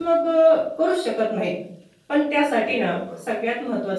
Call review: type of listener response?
listening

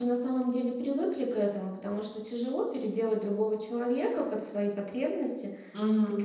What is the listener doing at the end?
listening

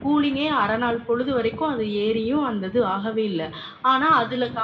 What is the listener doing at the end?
listening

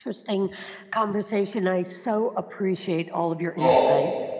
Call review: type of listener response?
taking over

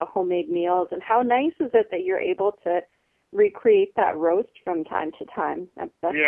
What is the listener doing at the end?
taking over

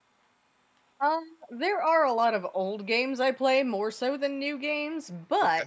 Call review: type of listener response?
listening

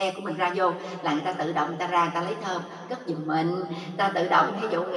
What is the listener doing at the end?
listening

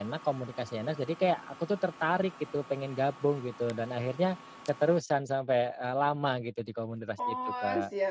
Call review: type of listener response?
taking over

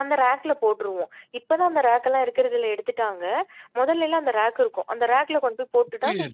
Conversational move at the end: taking over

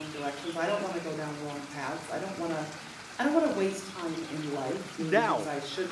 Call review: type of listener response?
listening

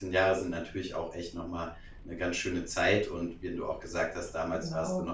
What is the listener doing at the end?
listening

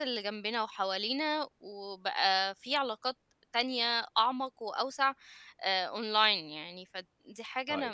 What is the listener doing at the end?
taking over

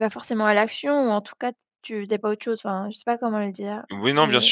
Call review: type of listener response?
taking over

